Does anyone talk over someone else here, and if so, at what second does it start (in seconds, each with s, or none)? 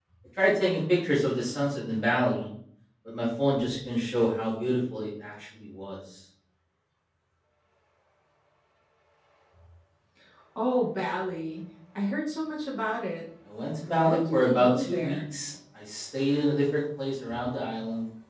13.9 s